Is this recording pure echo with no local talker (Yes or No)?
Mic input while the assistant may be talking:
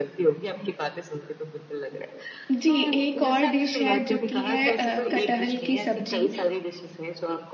No